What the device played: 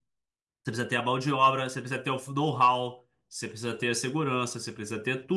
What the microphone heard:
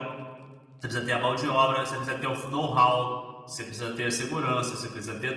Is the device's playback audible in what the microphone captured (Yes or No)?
Yes